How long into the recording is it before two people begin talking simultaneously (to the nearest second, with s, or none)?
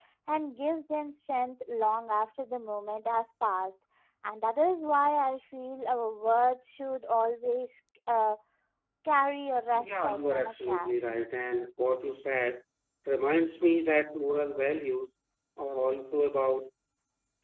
10 s